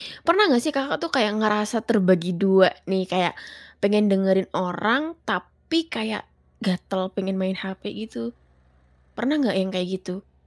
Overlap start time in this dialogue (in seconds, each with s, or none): none